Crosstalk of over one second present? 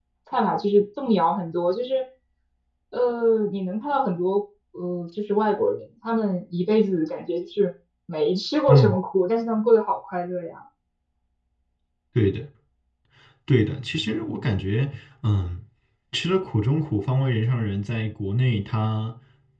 No

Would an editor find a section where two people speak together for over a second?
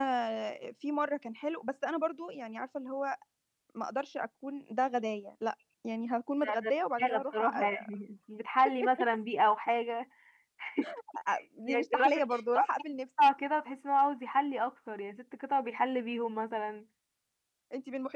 Yes, from 6.4 s

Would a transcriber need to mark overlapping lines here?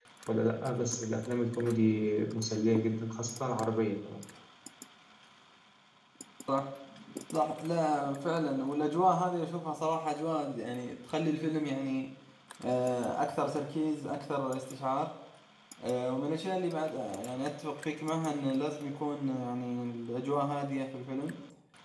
No

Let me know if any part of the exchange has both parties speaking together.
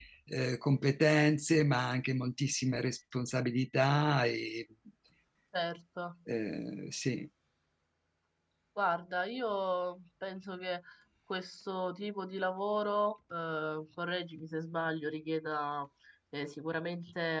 No

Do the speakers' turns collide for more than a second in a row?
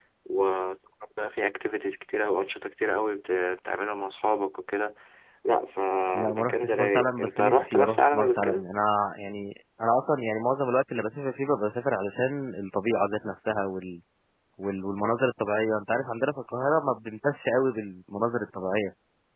Yes, from 6.2 s

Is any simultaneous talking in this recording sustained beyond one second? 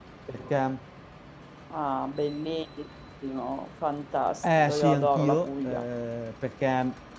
Yes, from 4.4 s

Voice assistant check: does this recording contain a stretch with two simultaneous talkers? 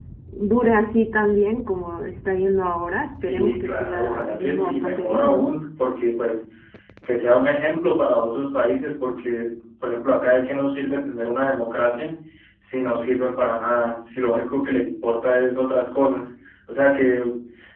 Yes, from 3.2 s

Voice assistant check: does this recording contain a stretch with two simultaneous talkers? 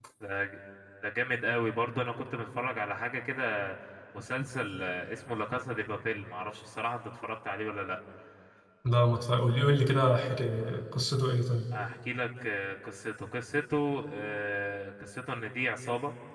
No

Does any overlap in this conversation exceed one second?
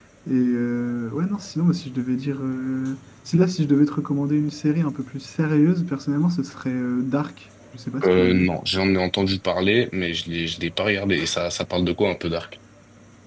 No

